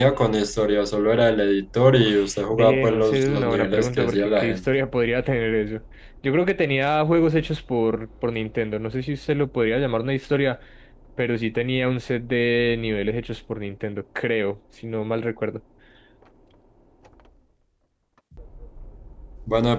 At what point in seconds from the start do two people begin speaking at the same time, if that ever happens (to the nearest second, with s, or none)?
2 s